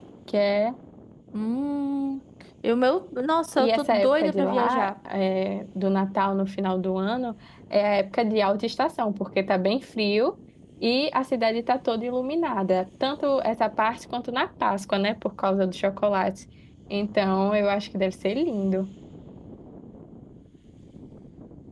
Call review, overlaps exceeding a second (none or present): present